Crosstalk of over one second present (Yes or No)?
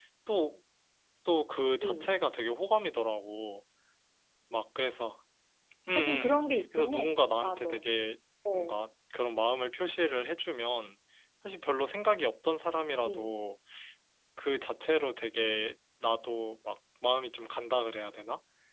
Yes